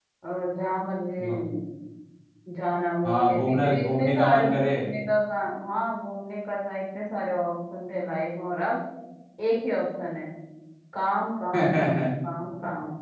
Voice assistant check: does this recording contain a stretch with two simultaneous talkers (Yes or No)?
Yes